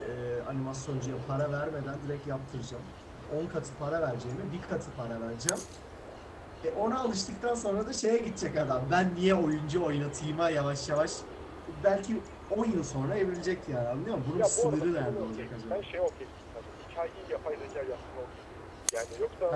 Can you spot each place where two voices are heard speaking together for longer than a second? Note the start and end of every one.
14.4-15.9

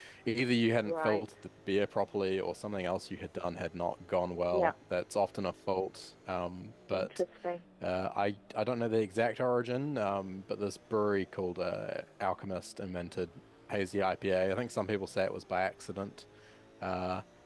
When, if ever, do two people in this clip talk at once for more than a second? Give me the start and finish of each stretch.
none

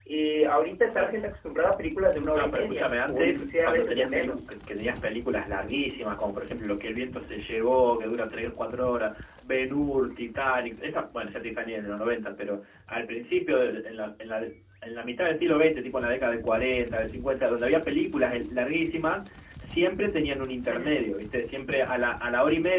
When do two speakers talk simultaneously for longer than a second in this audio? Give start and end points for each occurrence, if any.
2.3-4.4

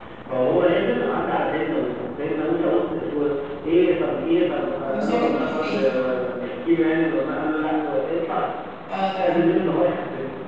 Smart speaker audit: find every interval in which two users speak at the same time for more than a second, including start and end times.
4.8-6.1

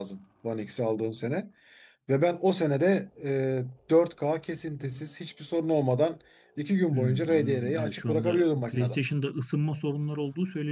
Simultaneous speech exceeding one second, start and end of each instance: 6.9-8.9

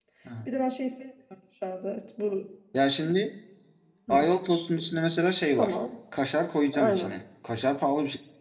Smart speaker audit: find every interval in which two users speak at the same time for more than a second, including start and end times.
none

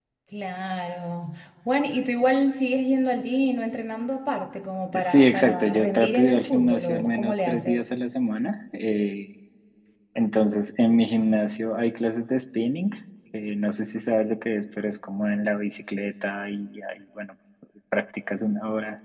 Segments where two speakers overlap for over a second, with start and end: 4.9-7.8

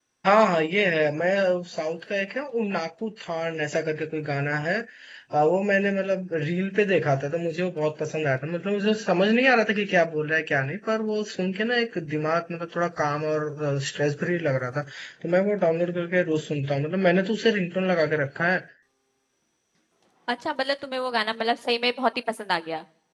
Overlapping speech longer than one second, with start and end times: none

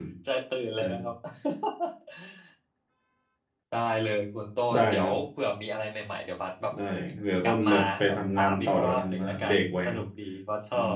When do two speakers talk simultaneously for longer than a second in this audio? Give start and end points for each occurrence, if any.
7.4-10.0

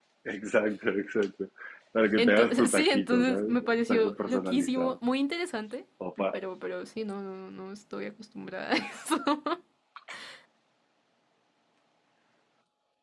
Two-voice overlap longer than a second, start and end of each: 2.2-5.0

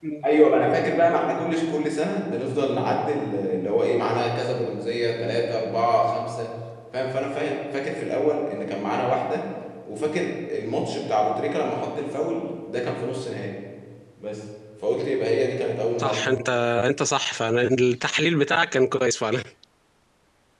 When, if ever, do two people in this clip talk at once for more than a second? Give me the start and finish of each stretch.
none

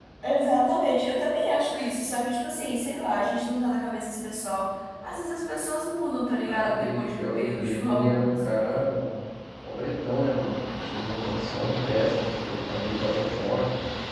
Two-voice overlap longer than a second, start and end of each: 6.5-8.8

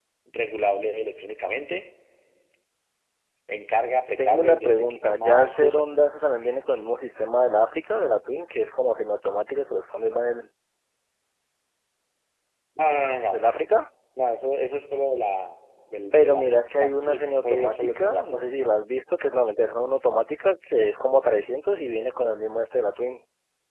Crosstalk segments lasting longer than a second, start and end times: 4.2-5.9, 16.1-18.4

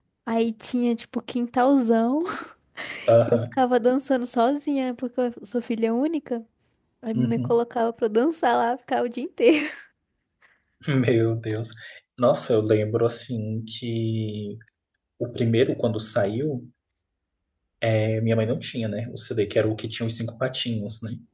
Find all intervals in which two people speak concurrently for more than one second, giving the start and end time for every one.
none

